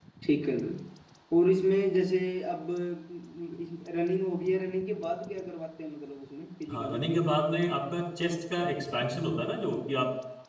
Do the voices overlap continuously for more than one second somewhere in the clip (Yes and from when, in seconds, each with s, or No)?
No